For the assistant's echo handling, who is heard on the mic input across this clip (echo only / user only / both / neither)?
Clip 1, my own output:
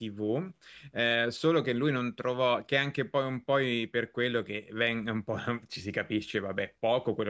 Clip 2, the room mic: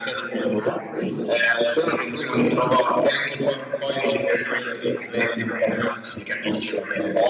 echo only